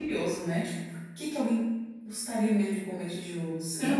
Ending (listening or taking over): taking over